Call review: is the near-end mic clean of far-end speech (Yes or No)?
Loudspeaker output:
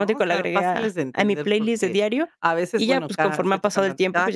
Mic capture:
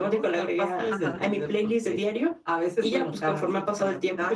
No